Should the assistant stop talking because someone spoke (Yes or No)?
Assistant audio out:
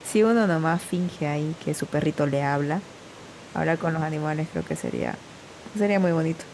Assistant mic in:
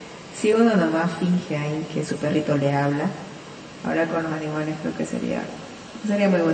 No